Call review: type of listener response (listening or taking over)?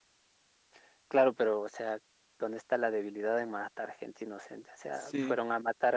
listening